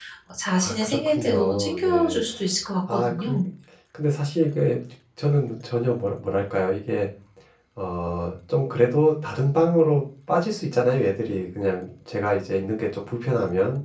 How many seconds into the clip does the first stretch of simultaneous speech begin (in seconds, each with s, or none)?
0.6 s